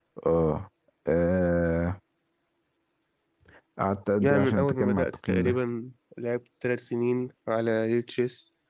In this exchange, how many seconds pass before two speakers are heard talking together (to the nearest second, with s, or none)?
4 s